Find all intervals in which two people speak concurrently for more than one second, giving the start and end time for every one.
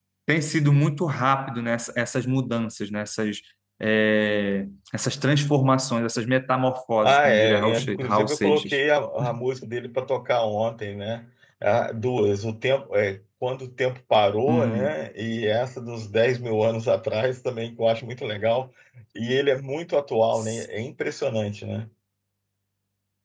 7.0-8.8

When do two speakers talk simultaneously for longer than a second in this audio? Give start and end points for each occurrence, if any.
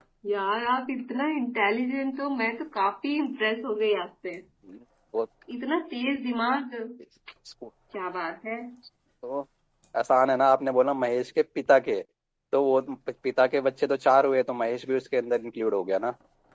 none

